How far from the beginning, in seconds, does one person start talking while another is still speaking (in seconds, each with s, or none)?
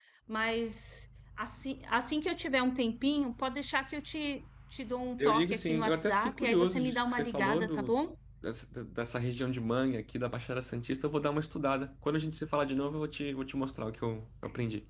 5.2 s